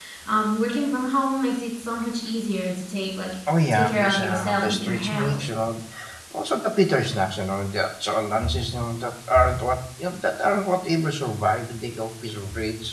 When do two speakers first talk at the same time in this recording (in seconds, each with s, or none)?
3.5 s